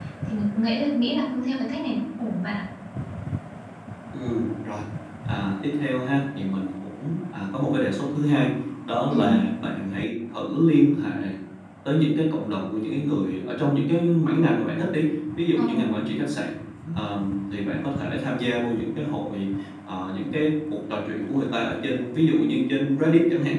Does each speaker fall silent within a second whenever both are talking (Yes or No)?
Yes